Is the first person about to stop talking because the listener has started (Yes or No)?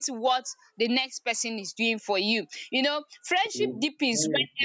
No